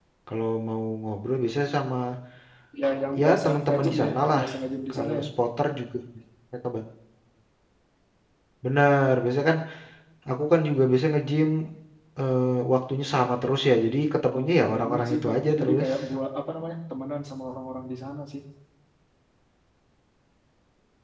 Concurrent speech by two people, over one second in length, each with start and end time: 3.2-4.4, 14.3-15.9

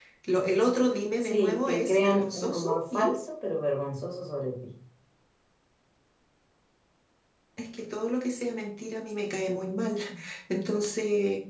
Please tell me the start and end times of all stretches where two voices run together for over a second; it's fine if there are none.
1.2-3.2

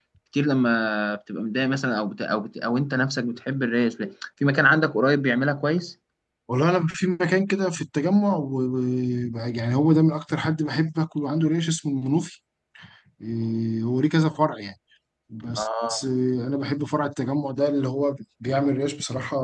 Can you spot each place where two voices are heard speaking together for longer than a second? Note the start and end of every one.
none

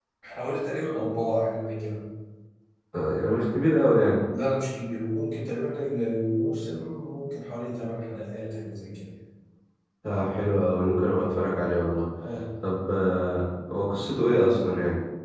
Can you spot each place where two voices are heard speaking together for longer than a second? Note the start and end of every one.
none

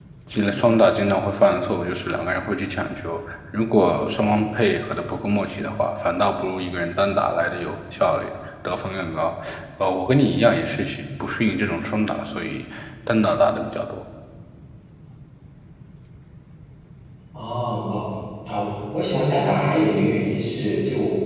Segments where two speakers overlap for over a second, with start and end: none

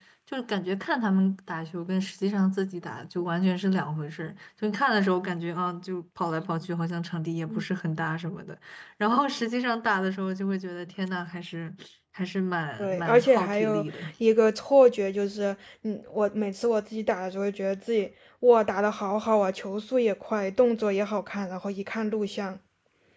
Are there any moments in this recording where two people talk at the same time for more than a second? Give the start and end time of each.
12.8-14.1

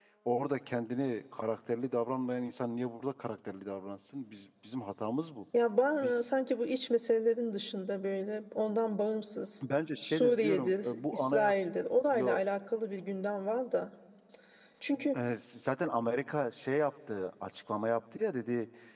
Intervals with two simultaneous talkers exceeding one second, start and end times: 10.0-11.7

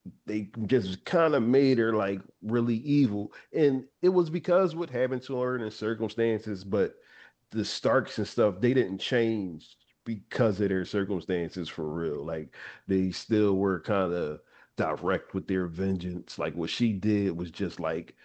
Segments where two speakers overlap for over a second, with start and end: none

